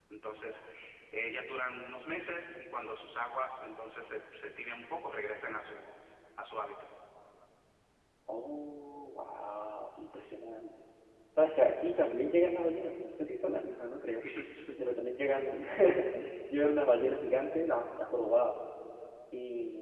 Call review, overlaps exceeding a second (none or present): none